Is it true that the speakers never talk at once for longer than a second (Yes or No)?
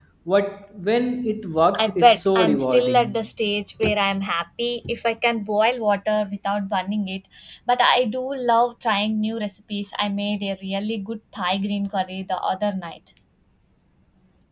No